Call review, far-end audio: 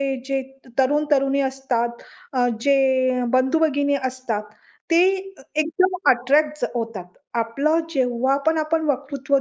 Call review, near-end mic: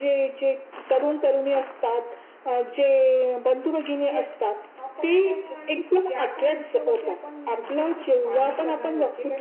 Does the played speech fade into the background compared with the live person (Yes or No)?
No